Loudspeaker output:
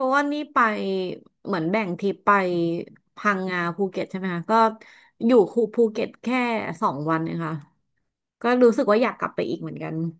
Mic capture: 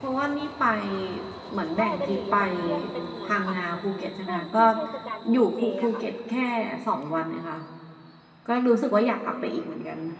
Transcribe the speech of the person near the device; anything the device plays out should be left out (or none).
ใช่เป็นหมี่ฮกเกี้ยนเป็นหมี่ผัดเหมือนช่วงที่เทศกาลกินเจอะค่ะ